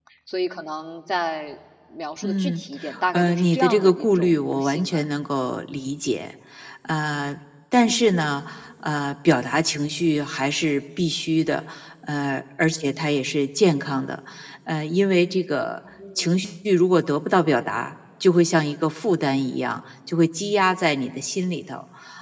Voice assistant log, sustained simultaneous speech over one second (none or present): present